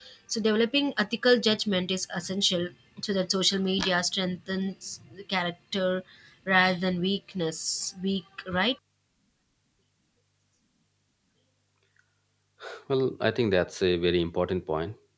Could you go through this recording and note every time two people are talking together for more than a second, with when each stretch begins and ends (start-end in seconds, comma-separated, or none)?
none